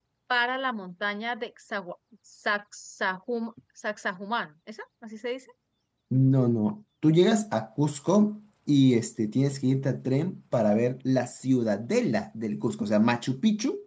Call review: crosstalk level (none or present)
none